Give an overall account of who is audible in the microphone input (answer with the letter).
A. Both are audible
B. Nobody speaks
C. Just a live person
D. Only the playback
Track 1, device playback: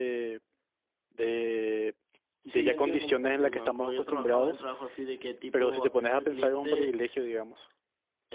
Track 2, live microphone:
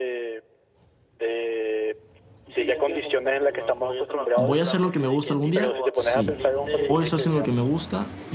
A